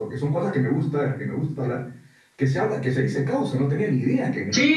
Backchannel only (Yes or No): No